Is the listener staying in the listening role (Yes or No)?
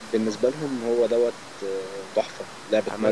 No